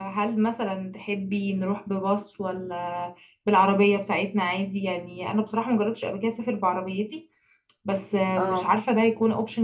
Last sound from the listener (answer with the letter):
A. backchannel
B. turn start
A